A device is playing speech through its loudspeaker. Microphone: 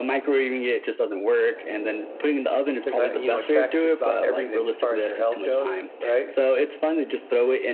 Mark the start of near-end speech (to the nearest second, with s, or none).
3 s